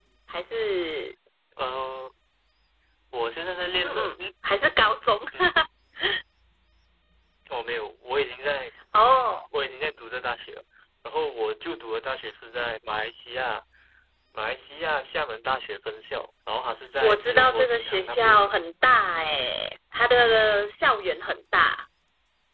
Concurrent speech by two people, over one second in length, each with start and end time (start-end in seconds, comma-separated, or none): 17.0-18.5